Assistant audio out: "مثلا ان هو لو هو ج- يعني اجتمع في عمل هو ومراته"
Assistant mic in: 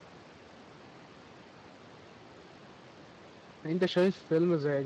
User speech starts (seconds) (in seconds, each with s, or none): 3.6 s